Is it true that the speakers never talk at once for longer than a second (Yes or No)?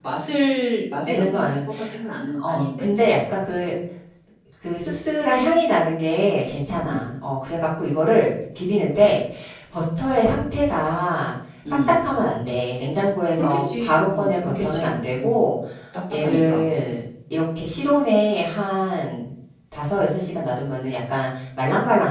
No